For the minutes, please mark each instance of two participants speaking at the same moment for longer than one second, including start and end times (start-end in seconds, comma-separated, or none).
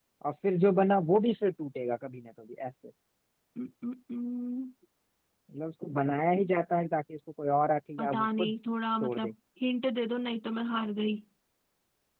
none